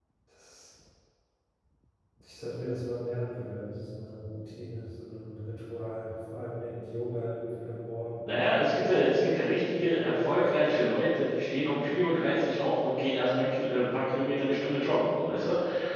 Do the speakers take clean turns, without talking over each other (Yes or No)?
Yes